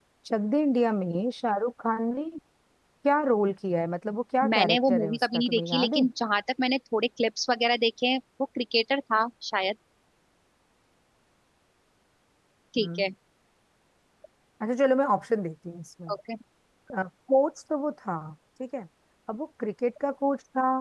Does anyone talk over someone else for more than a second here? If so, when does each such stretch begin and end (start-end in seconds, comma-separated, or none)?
4.5-6.0